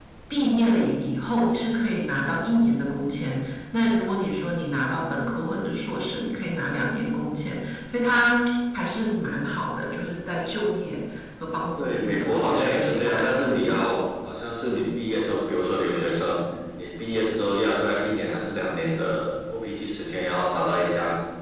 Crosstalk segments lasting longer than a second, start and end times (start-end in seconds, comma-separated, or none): 11.8-13.3